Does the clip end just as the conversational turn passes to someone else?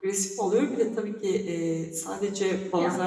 No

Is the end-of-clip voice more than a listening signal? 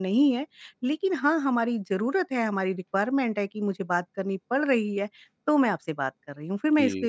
Yes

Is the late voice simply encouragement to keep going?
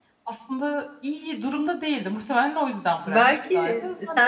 No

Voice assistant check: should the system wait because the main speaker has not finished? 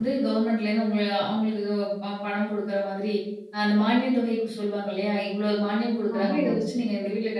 Yes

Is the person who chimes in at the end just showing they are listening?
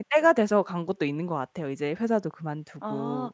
No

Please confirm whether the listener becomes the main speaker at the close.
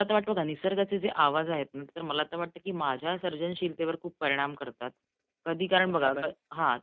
No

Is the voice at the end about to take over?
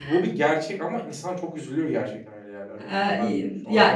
Yes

